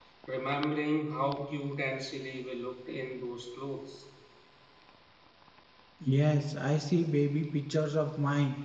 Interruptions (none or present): none